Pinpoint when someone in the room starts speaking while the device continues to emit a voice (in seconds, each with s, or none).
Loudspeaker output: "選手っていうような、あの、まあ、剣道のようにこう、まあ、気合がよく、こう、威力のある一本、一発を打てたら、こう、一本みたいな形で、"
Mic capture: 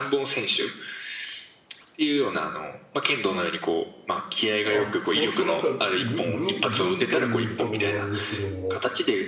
4.6 s